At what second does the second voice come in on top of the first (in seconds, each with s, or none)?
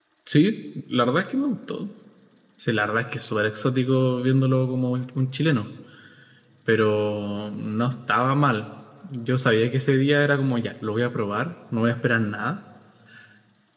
none